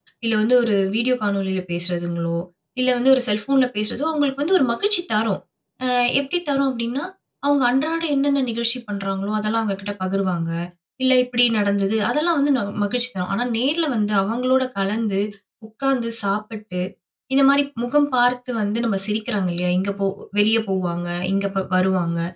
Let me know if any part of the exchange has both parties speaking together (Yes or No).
No